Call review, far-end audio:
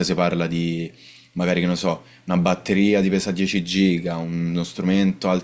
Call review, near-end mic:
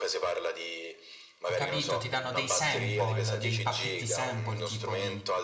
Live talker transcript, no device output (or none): Ho capito, ti danno dei sample, dei pacchetti sample tipo di